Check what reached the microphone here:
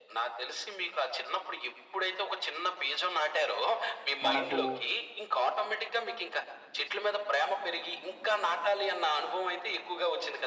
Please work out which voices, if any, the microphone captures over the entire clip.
both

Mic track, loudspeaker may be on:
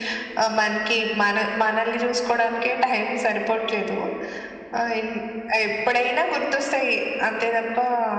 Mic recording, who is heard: echo only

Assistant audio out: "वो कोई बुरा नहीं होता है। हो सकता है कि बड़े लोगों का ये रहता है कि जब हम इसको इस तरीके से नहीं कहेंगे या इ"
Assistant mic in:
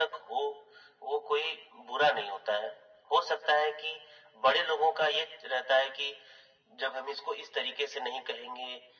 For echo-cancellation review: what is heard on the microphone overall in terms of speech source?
echo only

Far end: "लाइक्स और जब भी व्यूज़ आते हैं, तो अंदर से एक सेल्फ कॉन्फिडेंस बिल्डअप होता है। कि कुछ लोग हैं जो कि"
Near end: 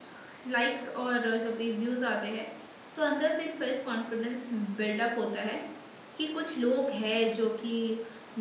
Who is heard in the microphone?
echo only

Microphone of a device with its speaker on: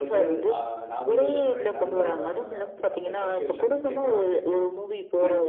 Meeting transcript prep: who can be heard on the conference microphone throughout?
both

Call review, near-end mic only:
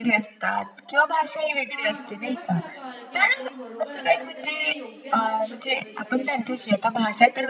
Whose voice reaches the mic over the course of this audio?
both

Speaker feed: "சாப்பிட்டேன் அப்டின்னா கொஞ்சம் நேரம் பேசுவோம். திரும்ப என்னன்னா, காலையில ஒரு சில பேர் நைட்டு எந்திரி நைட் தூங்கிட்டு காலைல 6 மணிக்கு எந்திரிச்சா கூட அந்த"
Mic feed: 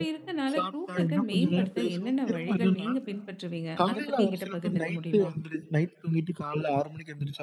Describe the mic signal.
both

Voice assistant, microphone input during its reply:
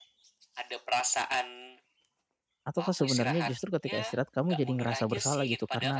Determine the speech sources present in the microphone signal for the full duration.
both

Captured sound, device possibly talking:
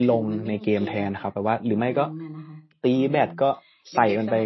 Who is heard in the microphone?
both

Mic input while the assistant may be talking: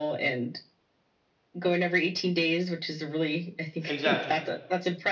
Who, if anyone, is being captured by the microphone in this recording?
both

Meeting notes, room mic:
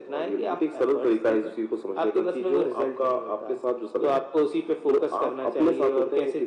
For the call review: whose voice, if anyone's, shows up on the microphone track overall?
echo only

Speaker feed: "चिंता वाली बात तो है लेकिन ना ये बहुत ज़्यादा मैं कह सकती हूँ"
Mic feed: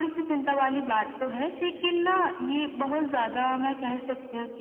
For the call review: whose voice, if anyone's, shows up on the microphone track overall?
echo only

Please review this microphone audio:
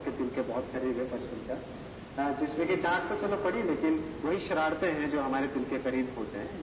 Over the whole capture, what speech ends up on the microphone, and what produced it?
echo only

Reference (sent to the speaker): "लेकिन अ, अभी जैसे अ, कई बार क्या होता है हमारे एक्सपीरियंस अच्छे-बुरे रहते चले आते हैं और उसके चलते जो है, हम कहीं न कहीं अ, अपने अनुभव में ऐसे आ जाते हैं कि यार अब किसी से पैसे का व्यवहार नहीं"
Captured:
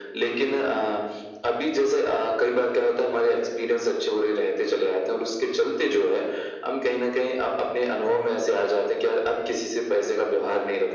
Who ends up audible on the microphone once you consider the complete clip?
echo only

